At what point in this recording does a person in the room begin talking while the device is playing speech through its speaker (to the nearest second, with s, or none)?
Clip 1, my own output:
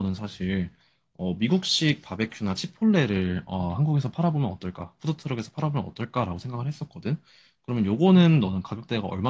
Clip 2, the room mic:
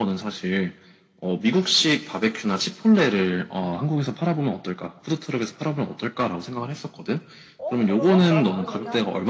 8 s